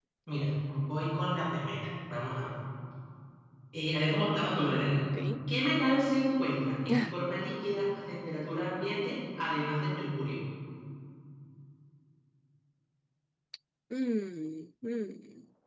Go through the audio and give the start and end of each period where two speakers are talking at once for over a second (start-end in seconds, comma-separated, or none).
none